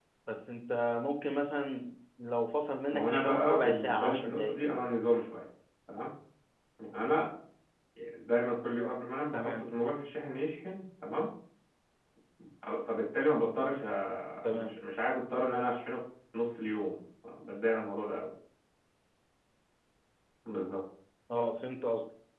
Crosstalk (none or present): present